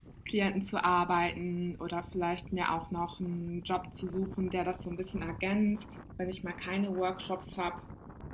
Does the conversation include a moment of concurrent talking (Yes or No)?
No